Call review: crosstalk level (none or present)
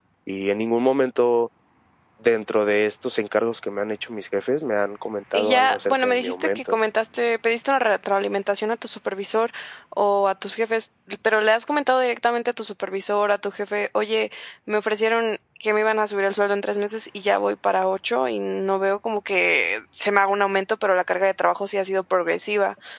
present